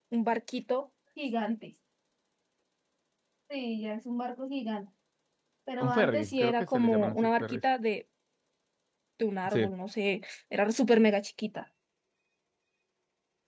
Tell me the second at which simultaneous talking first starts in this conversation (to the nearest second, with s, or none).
6 s